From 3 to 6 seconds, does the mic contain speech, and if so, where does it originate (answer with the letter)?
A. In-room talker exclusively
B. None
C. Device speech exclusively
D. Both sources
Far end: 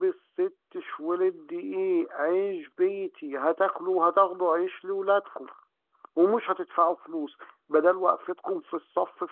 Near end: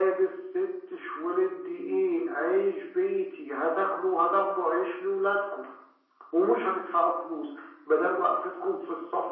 C